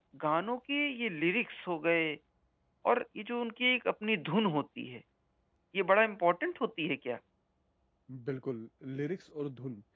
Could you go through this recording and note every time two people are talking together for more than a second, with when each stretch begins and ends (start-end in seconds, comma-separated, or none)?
none